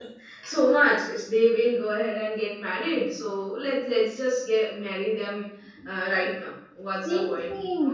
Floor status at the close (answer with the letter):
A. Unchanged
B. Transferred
B